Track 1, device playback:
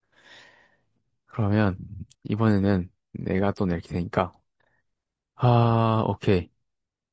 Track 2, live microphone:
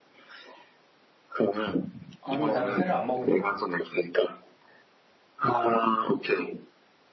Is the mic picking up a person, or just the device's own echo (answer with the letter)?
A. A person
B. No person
A